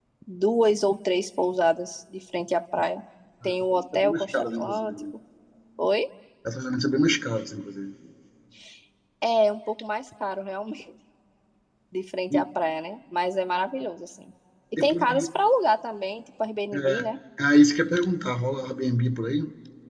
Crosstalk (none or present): present